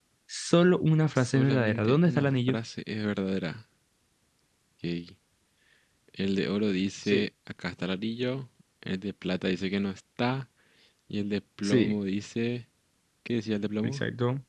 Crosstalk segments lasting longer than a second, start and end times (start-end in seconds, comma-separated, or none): 1.1-2.5